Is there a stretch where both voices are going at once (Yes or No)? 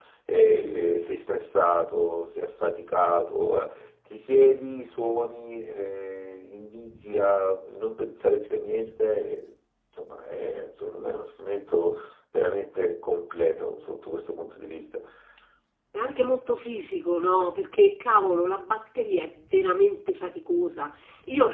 No